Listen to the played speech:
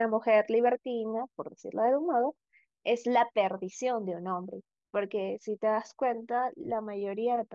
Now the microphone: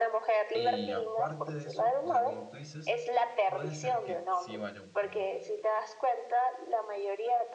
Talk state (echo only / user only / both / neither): both